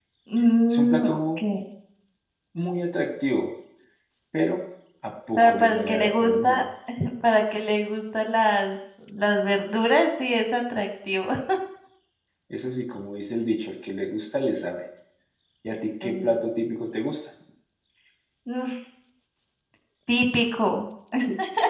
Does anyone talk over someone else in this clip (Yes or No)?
Yes